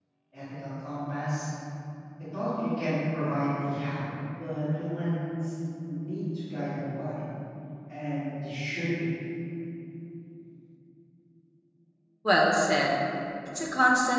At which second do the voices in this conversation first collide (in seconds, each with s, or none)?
none